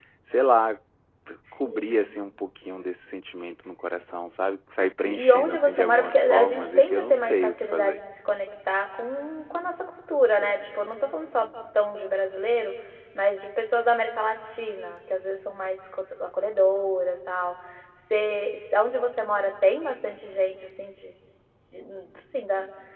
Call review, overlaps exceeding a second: present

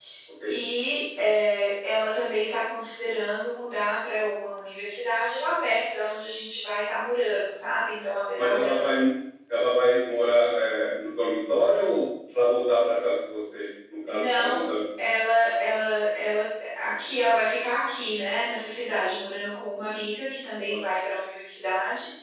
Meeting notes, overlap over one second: none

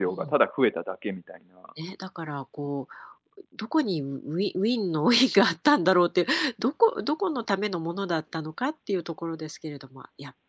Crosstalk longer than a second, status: none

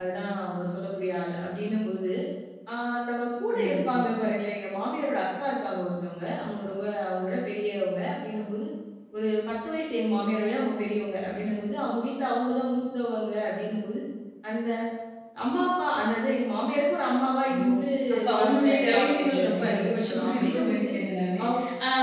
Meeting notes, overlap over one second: present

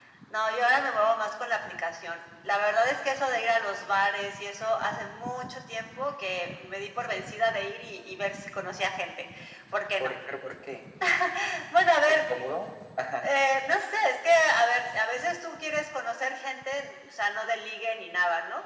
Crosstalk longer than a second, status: none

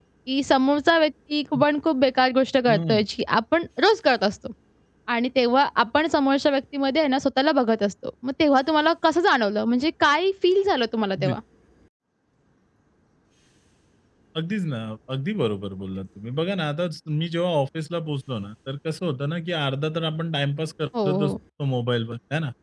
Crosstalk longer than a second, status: none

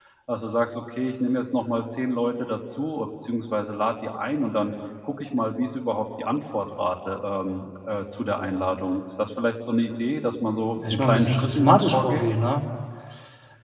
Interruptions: present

